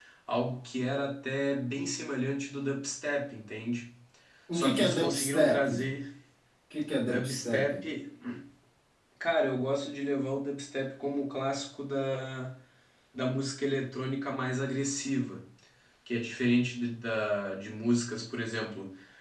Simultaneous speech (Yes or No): Yes